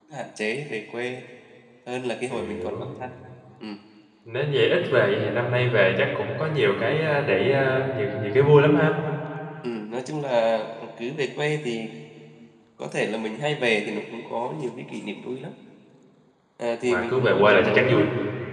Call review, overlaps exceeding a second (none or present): present